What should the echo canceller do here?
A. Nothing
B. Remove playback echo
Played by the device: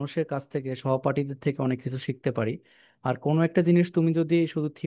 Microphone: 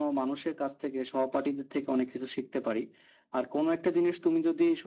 B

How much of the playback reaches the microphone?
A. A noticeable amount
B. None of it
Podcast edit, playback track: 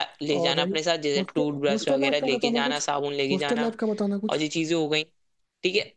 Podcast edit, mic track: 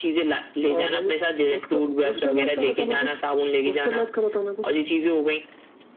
A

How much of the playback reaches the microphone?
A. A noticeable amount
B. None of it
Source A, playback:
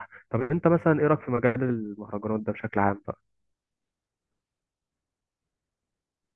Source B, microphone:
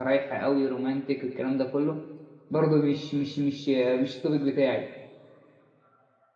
B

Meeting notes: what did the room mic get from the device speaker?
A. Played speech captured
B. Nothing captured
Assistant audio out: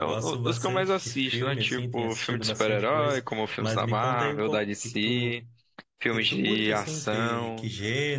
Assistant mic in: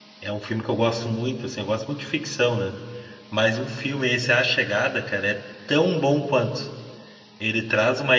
B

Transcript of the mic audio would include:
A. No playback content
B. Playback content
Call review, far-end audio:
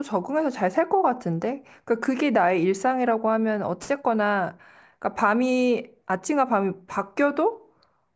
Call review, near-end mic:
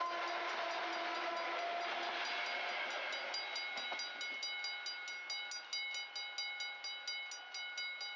A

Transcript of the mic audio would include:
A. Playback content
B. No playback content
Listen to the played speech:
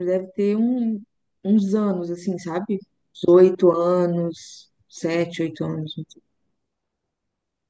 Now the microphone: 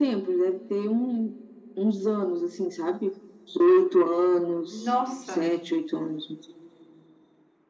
A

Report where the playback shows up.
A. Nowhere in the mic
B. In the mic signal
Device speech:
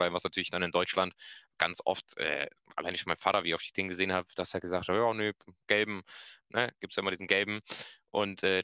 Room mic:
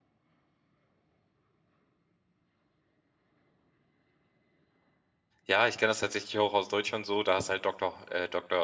A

